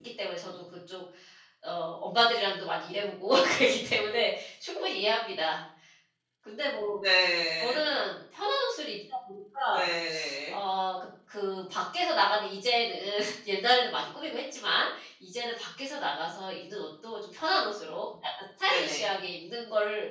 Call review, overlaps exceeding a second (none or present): none